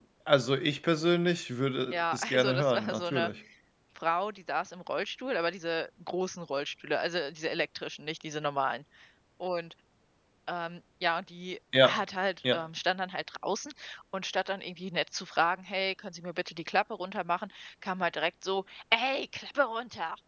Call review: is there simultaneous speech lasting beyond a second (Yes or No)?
Yes